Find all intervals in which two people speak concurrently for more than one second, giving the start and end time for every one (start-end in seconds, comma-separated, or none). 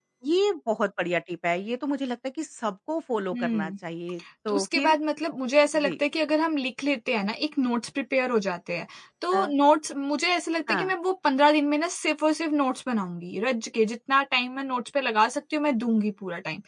none